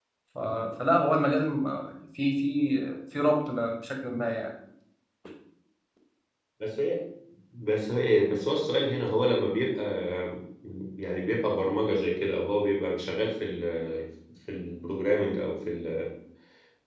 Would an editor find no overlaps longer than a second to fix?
Yes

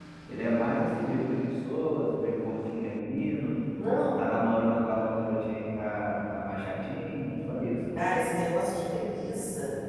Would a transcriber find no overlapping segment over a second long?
Yes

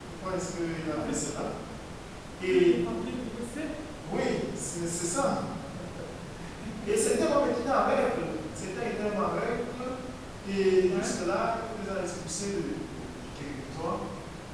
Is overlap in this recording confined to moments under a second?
Yes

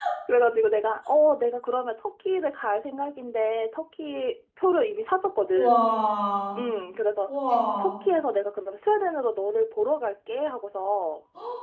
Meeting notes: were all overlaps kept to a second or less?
Yes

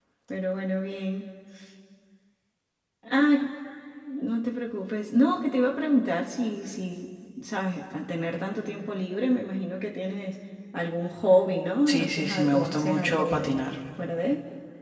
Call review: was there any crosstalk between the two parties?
Yes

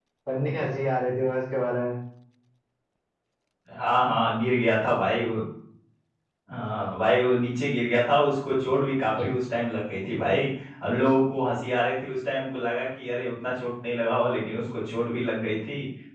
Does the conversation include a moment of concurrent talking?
No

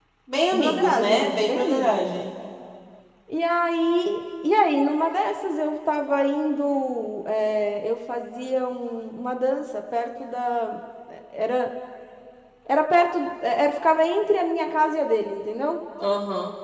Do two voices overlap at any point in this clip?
Yes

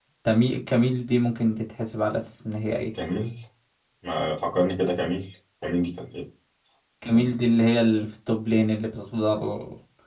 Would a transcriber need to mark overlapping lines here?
No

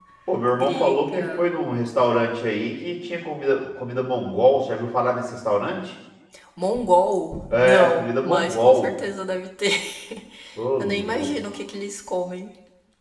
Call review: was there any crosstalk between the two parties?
Yes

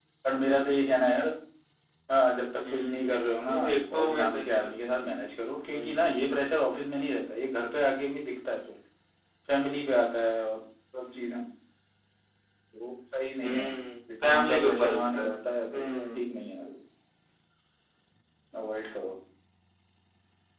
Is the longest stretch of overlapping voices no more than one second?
No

